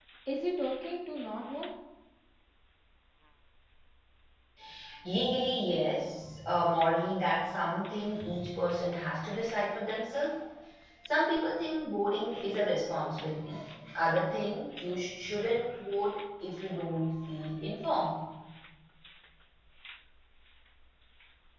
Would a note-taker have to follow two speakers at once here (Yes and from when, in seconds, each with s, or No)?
No